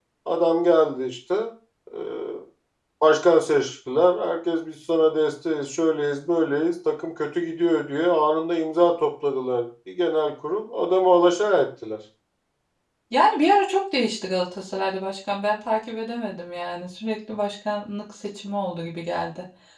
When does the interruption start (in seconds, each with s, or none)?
none